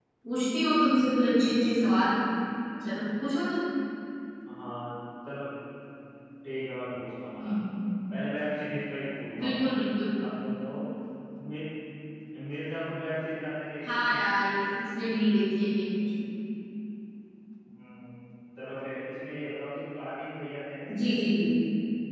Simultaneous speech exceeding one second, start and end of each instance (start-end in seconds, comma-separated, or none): none